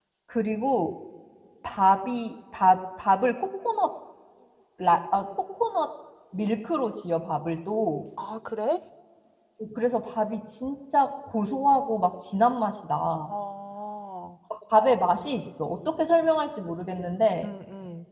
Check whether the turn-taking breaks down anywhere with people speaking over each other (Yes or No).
No